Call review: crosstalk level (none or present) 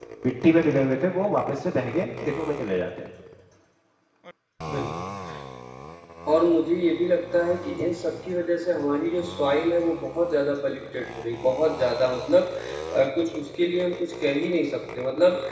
none